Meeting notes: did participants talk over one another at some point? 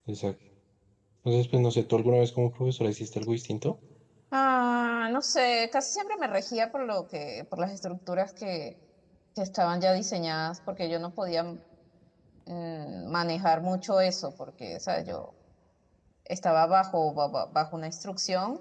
No

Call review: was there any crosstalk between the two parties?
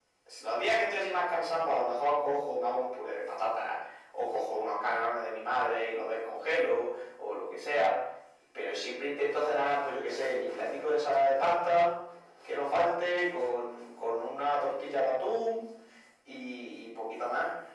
No

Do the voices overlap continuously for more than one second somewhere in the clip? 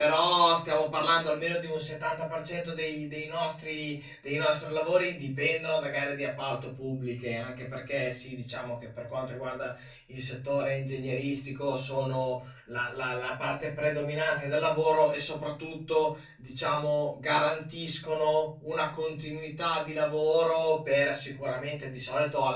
No

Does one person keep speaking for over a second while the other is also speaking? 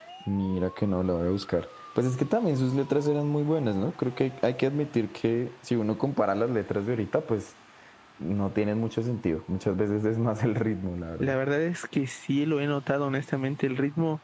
No

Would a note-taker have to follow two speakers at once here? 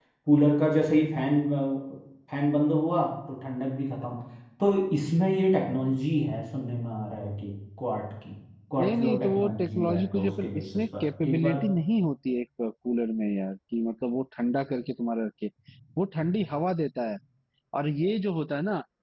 Yes, from 8.8 s

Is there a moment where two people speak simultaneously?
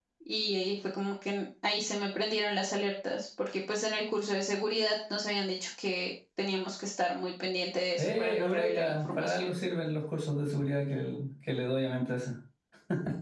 Yes, from 8.0 s

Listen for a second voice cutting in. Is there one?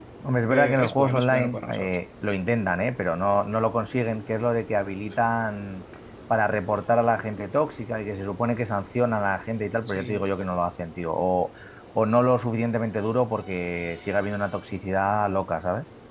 Yes, from 0.5 s

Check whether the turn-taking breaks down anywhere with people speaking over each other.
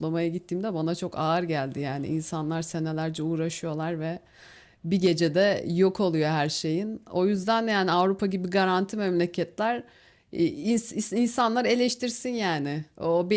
No

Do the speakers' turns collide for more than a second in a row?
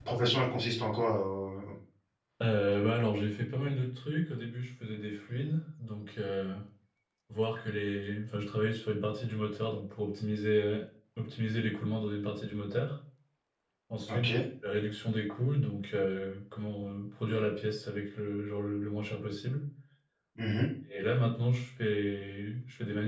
No

